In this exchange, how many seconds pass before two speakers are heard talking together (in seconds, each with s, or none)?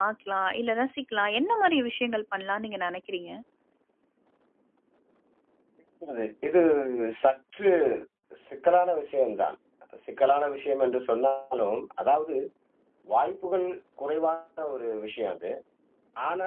none